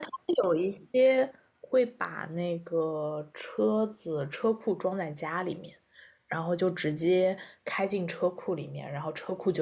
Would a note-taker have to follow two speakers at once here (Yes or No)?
No